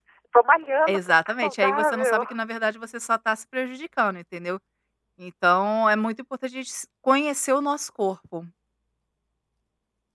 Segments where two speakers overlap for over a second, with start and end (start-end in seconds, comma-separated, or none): 0.9-2.2